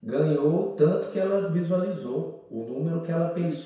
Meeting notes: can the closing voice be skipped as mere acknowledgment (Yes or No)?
Yes